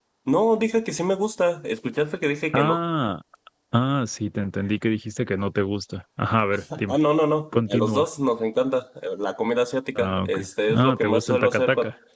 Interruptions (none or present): present